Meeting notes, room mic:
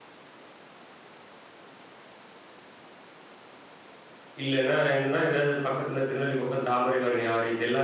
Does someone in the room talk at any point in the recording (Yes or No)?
Yes